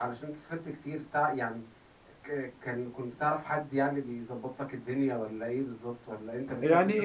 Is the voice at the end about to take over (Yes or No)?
Yes